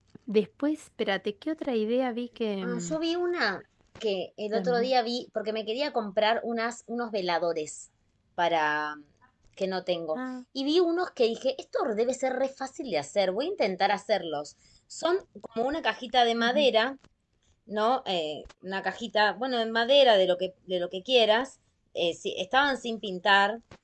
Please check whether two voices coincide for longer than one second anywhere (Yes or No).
No